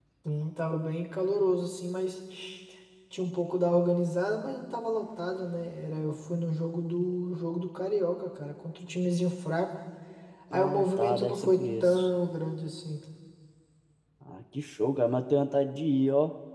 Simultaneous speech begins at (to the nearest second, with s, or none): 11 s